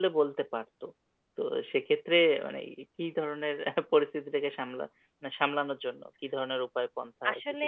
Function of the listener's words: taking over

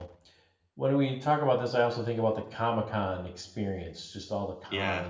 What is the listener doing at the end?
listening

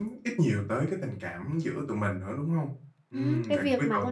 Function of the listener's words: taking over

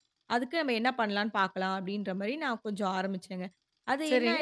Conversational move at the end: taking over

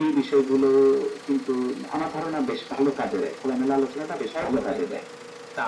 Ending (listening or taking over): taking over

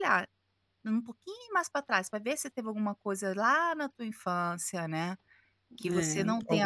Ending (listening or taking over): listening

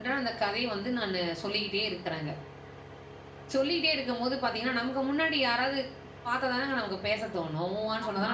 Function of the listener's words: taking over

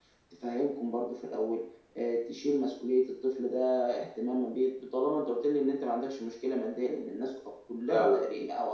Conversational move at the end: listening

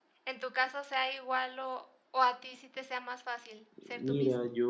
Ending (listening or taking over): taking over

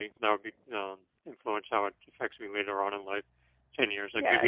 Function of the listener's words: taking over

